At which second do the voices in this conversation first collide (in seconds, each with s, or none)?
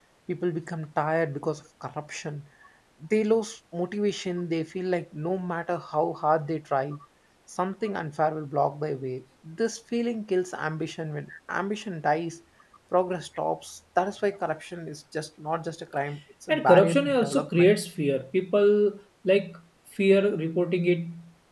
16.5 s